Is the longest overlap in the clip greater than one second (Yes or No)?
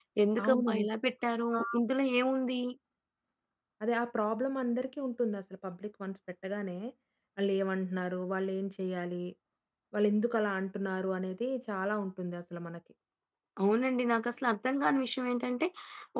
No